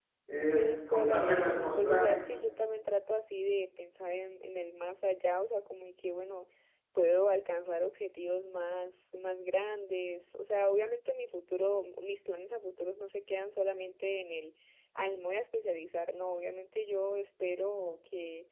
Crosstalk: present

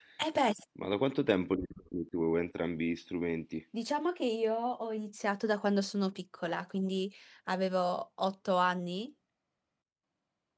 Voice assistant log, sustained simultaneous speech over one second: none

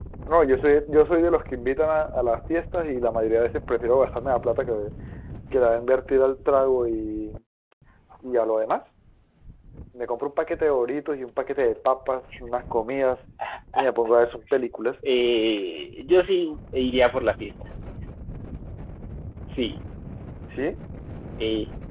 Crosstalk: none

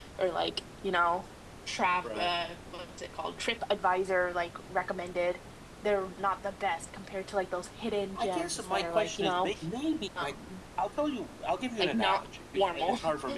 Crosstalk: present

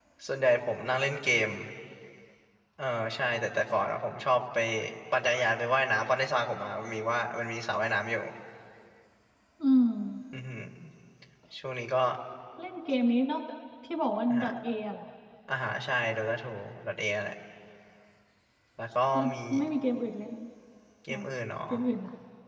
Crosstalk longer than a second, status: none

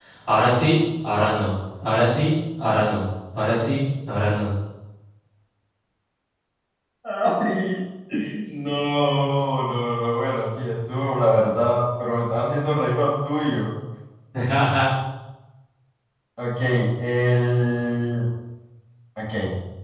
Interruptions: none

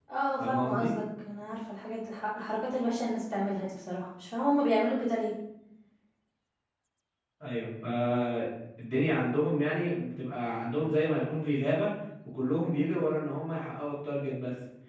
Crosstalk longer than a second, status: none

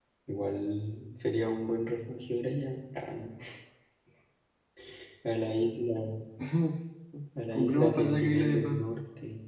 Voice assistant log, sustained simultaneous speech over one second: present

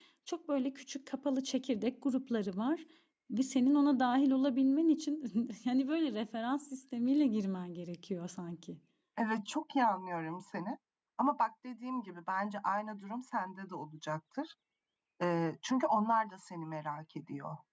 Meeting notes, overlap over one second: none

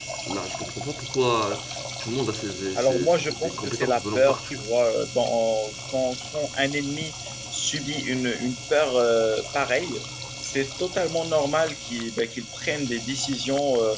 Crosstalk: present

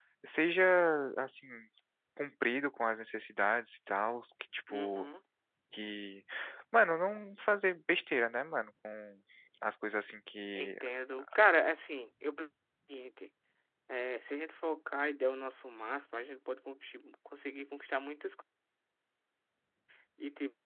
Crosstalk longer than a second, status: none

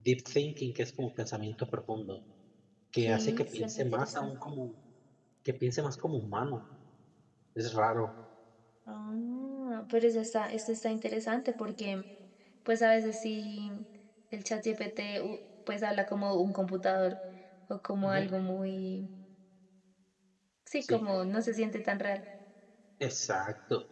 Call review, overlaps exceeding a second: present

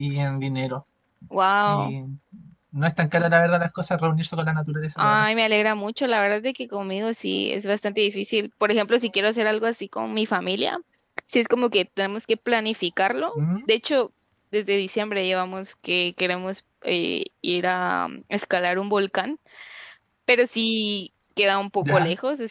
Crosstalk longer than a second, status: none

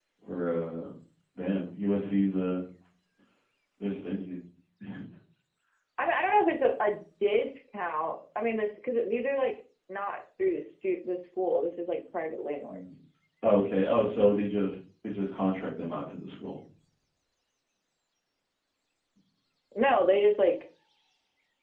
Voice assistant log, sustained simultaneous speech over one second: none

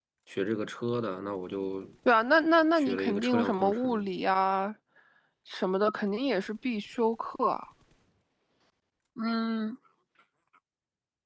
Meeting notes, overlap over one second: present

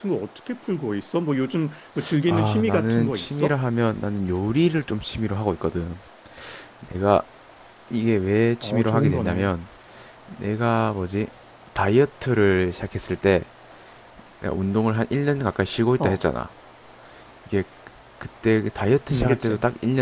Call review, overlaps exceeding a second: present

